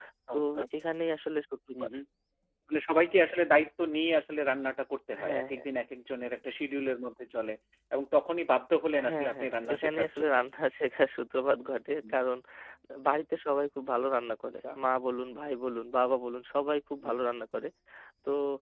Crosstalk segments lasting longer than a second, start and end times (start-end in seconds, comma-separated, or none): 9.1-10.3